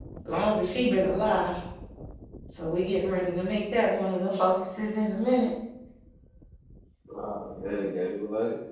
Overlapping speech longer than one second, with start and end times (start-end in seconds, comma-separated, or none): none